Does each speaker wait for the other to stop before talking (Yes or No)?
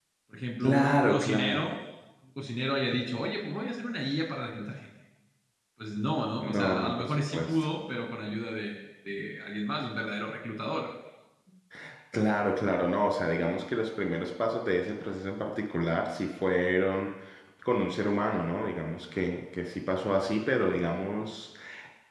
No